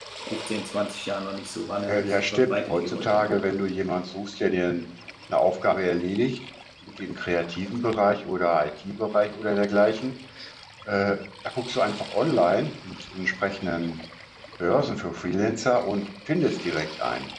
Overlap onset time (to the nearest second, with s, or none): 2 s